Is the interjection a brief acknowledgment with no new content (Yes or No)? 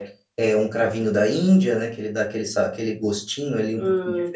No